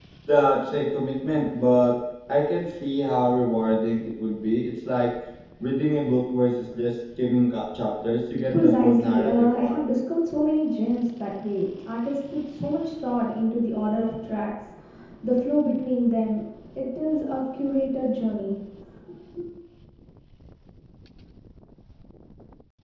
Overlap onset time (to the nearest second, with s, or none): 9 s